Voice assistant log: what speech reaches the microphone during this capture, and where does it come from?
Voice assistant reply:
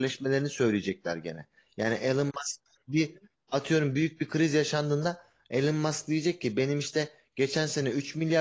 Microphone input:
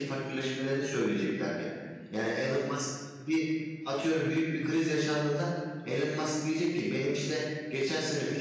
echo only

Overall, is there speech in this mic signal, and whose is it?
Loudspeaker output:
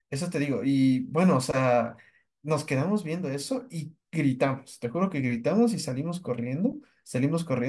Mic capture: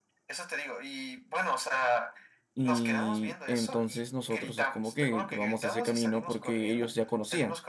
both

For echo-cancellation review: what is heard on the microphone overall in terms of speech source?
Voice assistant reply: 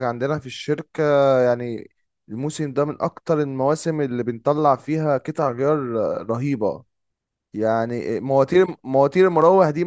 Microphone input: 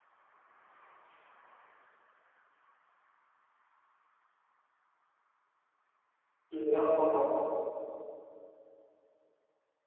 user only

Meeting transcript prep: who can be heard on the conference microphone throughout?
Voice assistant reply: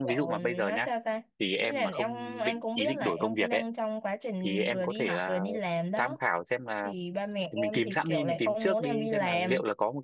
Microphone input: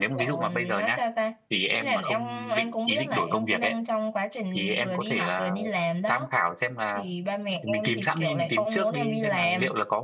echo only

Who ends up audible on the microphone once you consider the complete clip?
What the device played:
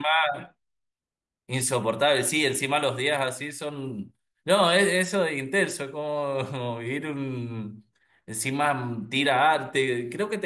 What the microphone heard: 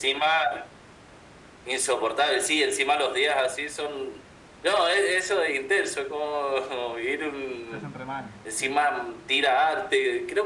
both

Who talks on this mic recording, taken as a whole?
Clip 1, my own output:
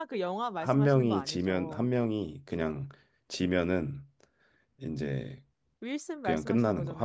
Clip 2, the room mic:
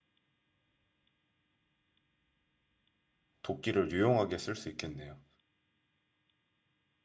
user only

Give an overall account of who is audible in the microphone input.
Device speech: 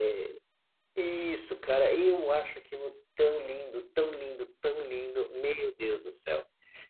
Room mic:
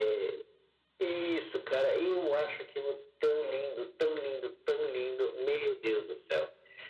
echo only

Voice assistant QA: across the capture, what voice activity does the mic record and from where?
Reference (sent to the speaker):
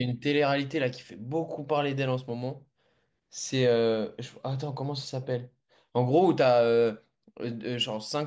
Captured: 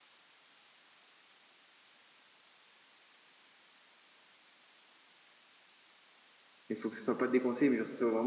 user only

